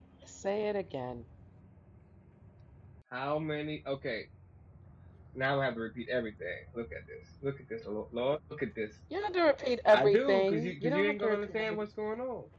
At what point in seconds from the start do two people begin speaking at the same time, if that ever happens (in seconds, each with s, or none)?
9.9 s